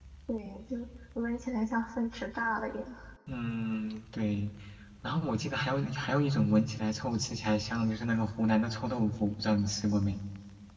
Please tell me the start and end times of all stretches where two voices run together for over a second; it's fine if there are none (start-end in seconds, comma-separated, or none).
none